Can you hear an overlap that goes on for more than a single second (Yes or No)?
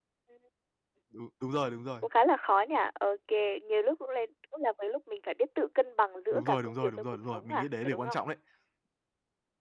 Yes